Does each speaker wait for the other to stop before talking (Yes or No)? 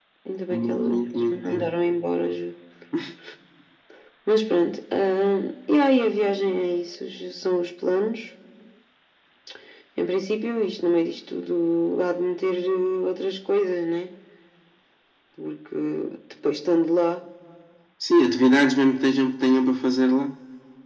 No